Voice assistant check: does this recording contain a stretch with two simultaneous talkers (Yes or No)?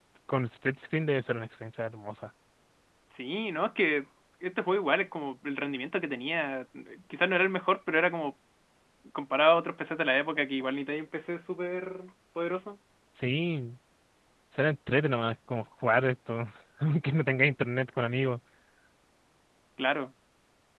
No